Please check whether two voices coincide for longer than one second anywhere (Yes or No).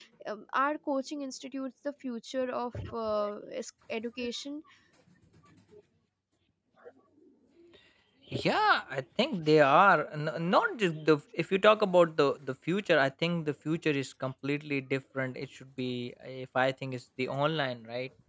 No